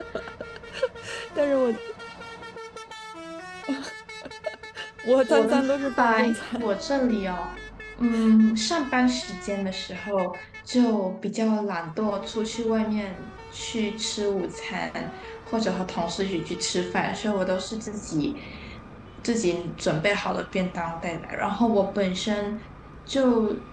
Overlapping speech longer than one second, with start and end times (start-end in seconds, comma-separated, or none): 5.3-6.7